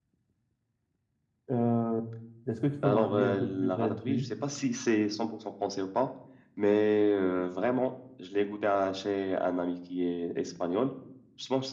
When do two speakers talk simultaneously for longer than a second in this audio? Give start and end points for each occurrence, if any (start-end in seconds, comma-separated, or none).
2.8-4.2